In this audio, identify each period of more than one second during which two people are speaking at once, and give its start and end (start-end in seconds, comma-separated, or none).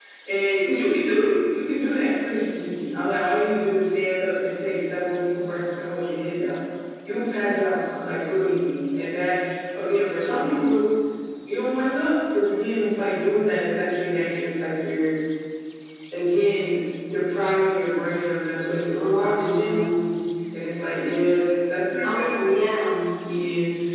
18.6-19.8